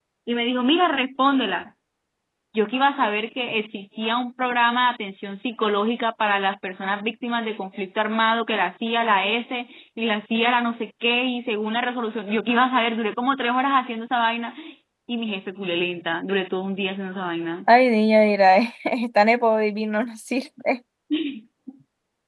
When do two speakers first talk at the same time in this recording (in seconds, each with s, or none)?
none